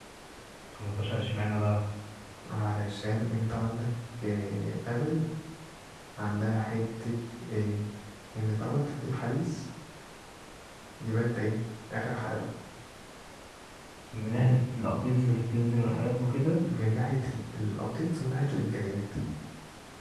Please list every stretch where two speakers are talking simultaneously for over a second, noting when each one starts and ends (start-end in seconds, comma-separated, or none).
none